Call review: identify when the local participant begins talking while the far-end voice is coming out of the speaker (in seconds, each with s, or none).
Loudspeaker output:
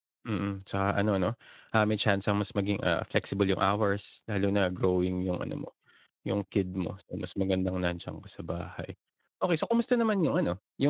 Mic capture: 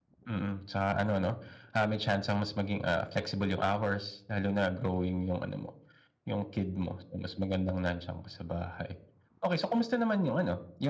none